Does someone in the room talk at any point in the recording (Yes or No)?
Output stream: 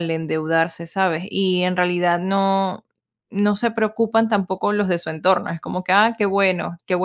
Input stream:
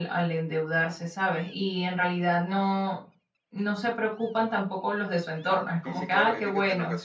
Yes